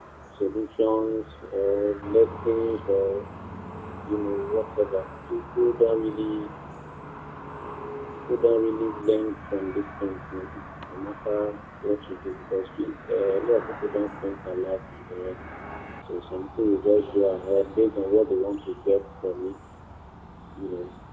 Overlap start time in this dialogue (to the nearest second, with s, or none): none